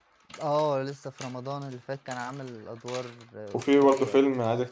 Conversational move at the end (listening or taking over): taking over